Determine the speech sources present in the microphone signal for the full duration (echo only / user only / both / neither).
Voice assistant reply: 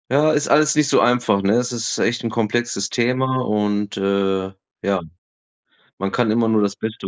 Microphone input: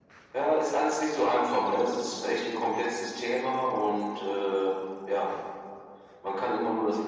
echo only